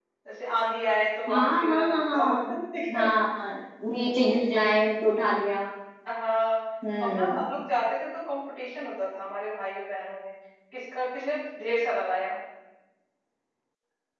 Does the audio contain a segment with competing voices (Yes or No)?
Yes